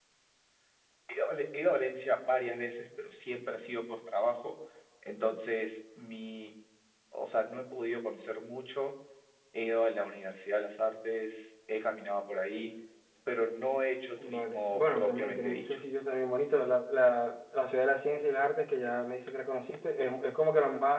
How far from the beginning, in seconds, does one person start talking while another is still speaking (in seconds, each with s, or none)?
14.2 s